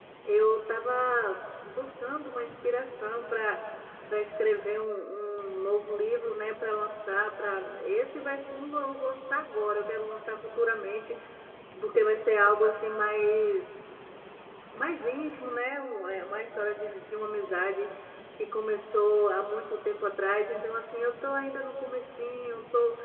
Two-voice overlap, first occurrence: none

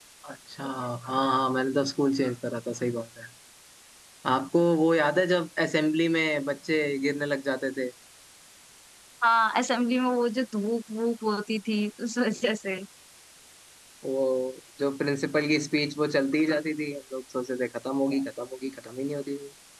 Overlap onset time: none

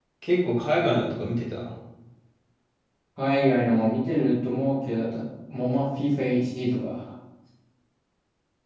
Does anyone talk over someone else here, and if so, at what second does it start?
none

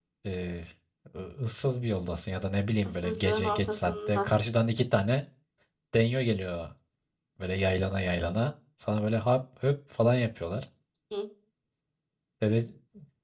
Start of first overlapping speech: 2.9 s

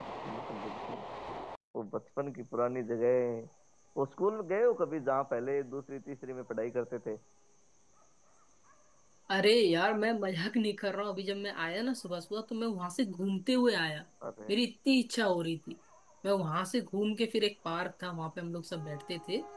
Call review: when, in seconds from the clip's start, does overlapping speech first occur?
none

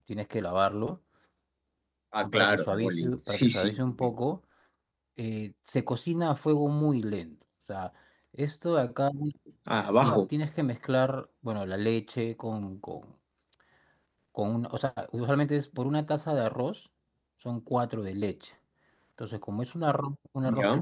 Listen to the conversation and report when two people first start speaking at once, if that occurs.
2.2 s

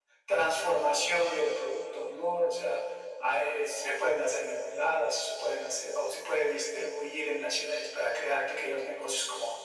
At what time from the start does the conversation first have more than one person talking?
none

